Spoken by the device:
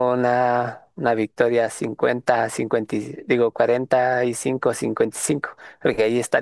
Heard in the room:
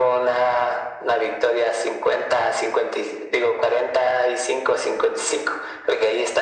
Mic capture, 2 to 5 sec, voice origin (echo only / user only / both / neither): echo only